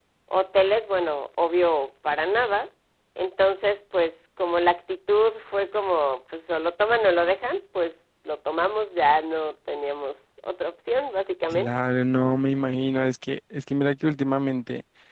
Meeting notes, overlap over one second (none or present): none